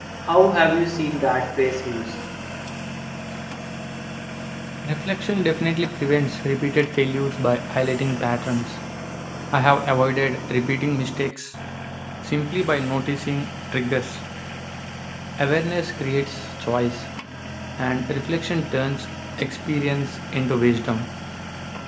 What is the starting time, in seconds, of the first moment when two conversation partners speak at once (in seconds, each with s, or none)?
none